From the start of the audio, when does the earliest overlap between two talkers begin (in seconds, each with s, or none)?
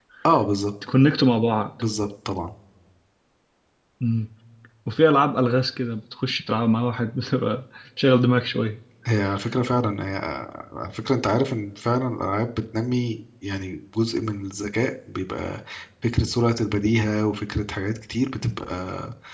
none